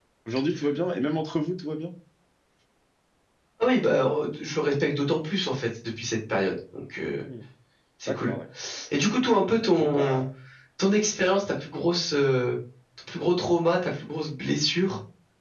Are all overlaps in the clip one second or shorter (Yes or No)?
Yes